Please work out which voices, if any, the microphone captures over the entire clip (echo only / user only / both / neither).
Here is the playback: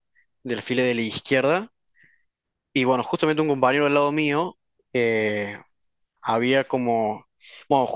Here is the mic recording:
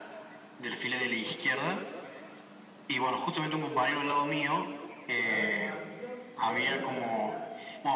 both